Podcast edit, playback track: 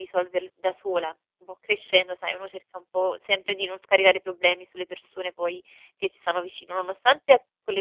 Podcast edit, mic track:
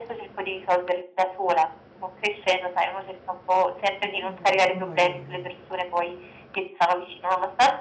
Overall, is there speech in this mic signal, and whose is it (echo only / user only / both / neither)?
both